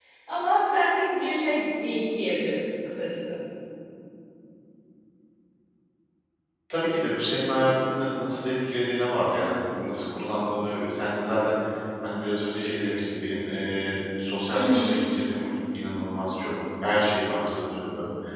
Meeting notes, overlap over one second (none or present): none